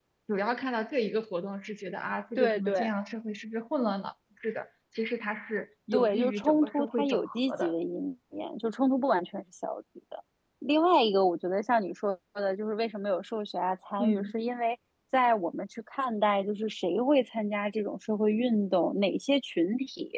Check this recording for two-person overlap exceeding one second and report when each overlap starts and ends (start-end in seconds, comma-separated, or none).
5.9-7.7